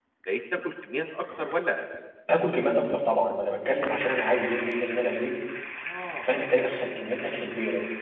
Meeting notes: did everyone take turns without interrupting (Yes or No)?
Yes